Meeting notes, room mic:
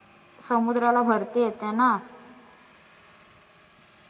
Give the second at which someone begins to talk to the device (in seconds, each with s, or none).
0.5 s